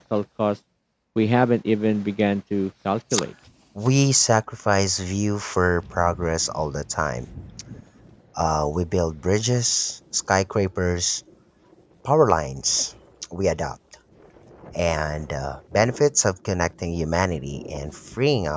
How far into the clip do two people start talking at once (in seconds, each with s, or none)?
none